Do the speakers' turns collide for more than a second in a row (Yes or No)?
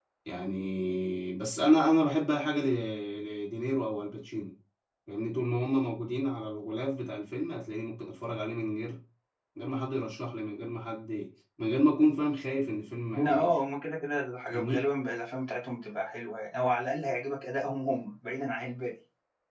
No